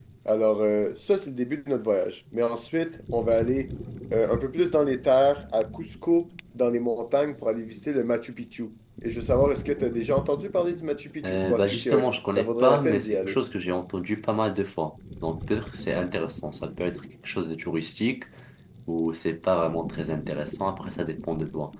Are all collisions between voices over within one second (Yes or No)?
No